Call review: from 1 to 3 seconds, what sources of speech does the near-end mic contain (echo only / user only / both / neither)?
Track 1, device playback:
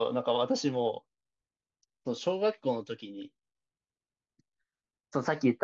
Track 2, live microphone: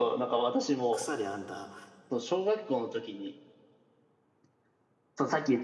both